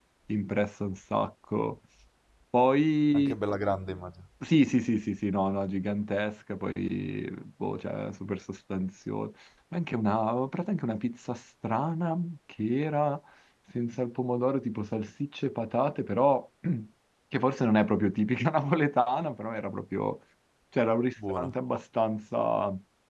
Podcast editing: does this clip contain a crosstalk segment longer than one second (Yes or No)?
No